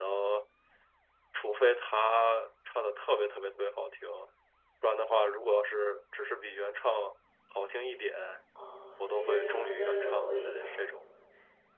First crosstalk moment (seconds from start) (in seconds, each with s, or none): 9.0 s